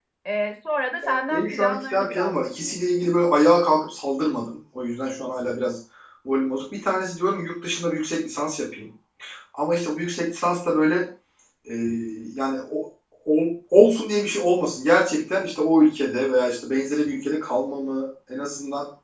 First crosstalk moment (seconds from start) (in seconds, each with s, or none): 1.0 s